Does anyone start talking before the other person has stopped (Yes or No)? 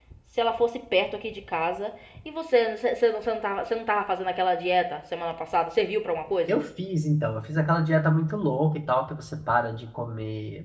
No